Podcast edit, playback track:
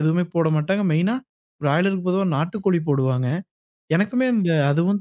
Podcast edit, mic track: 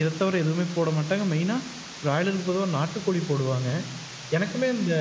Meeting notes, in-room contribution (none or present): none